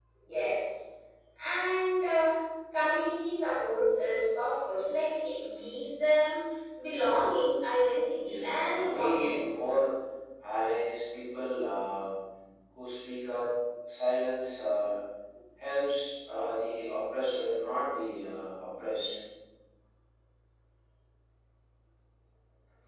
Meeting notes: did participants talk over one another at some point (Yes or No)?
Yes